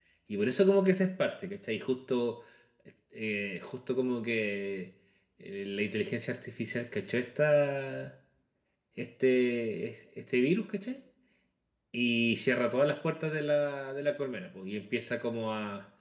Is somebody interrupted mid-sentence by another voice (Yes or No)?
No